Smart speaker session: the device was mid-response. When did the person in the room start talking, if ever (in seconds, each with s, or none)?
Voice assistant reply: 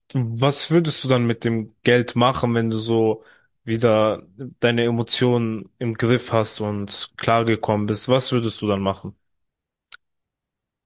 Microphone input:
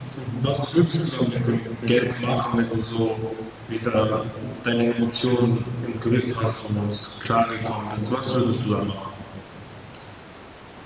1.3 s